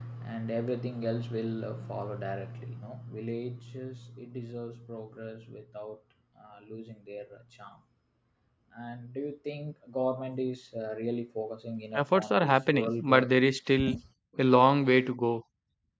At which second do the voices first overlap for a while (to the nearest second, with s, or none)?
12 s